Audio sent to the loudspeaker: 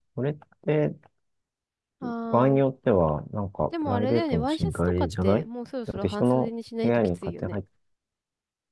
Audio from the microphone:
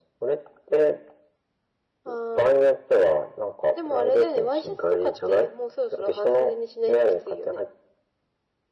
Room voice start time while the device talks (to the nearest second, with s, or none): none